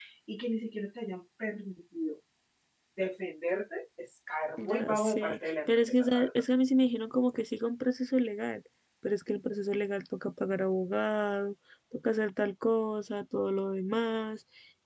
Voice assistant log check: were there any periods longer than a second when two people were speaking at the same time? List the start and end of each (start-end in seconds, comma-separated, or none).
4.6-6.4